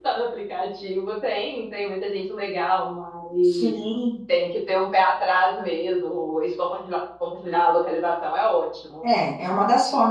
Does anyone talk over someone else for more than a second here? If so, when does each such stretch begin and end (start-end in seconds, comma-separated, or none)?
none